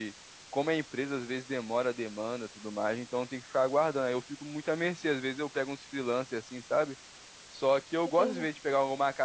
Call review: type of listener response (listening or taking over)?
listening